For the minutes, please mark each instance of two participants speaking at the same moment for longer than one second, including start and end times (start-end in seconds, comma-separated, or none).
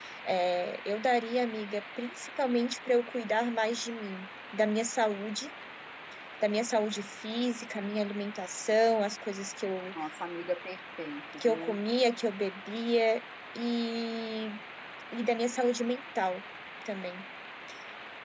none